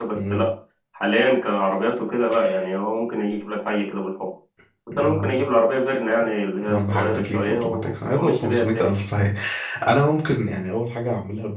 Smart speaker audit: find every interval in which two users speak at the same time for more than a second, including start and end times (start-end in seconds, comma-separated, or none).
6.7-8.9